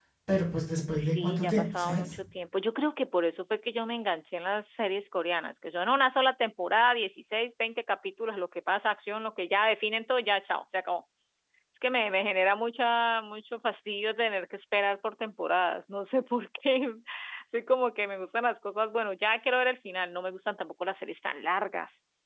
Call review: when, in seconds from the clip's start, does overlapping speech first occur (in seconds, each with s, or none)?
0.9 s